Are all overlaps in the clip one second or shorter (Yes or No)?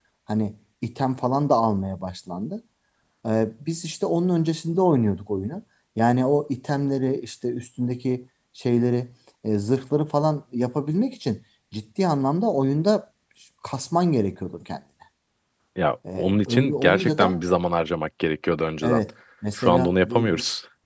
No